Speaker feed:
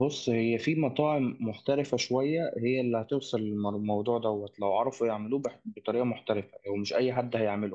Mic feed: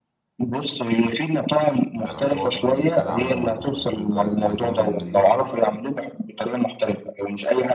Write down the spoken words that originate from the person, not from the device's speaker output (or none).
انا بحسبه اصلا بيتقلى عموما يعني البرجر اللي بيجيبه من من بره